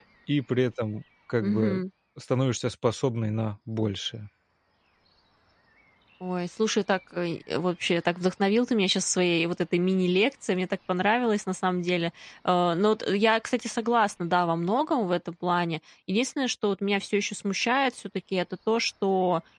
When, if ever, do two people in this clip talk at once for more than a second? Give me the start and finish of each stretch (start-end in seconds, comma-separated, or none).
none